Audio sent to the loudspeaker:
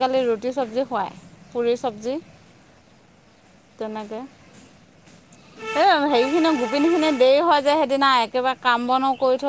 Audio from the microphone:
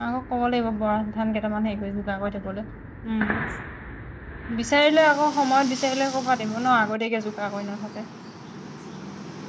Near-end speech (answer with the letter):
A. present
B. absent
A